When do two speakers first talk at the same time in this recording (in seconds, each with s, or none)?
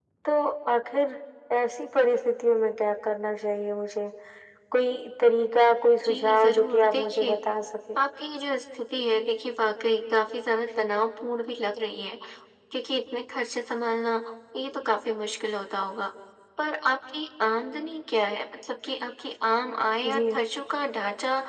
6.0 s